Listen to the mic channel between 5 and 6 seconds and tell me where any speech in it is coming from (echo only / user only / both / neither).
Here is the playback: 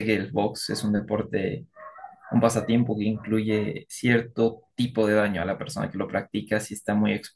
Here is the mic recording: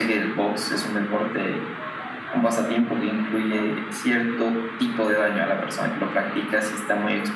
echo only